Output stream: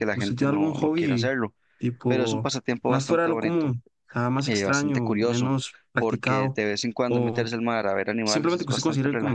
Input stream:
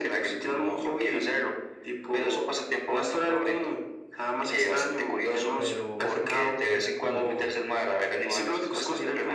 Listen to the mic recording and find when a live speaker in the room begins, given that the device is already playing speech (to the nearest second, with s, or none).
6 s